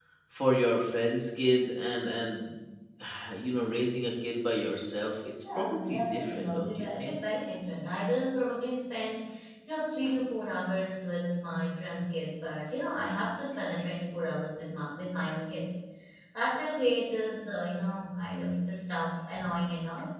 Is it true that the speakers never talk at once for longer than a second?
No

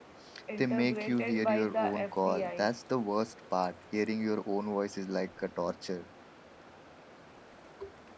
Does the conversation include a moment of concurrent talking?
Yes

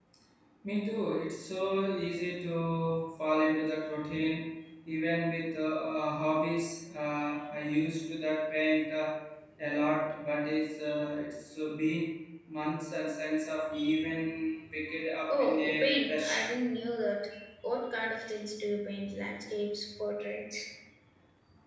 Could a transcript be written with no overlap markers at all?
No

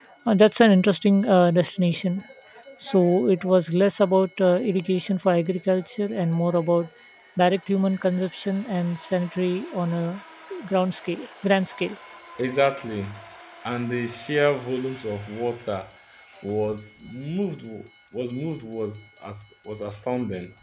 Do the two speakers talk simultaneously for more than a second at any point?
No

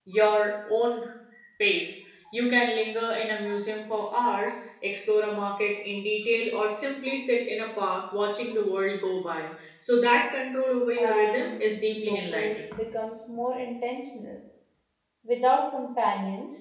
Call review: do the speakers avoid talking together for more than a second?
No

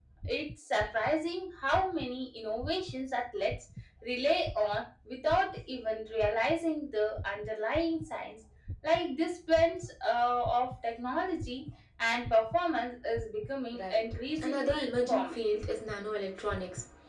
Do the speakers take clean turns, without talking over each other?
No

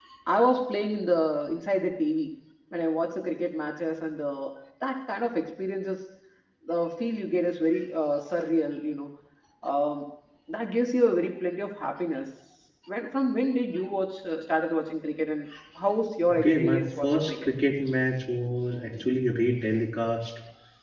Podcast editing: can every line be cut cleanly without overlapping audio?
No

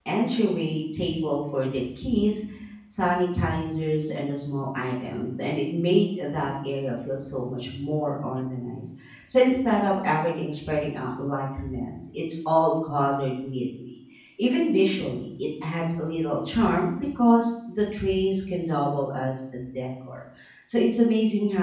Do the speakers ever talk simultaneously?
No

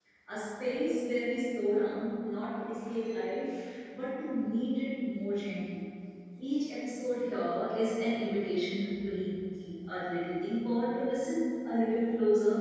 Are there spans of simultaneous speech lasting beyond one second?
No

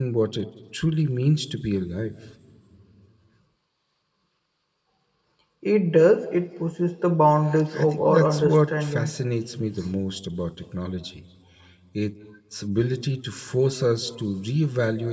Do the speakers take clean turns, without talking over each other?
No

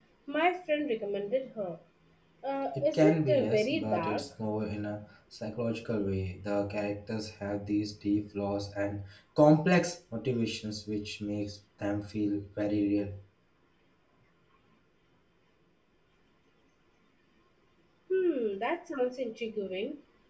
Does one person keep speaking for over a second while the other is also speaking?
Yes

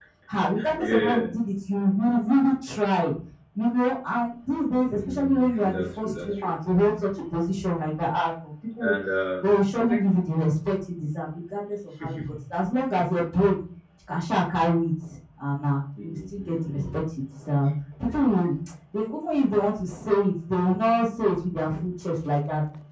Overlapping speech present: Yes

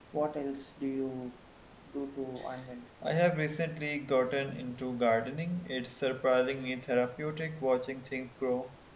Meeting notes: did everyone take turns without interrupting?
Yes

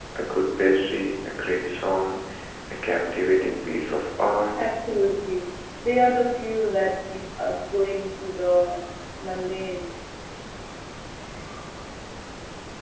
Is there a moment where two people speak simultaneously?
No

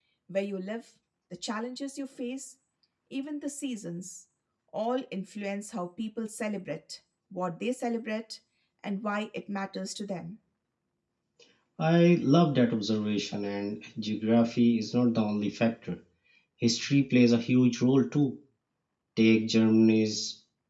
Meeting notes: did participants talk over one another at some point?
No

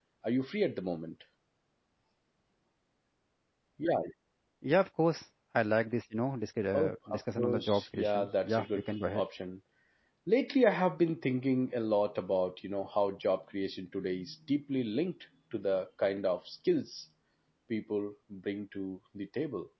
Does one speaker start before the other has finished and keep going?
Yes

